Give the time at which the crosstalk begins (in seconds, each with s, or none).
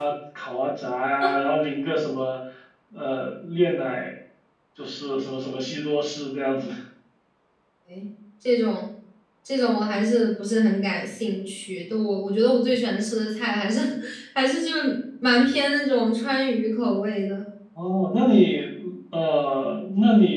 none